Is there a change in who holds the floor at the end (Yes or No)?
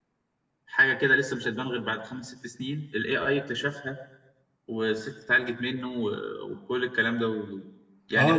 Yes